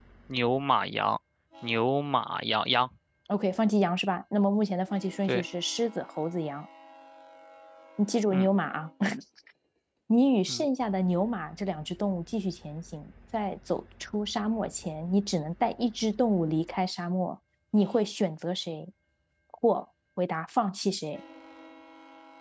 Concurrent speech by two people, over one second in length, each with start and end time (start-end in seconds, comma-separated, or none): none